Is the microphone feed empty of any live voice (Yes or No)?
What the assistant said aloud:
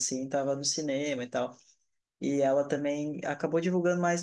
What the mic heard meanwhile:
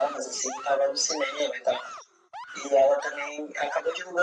Yes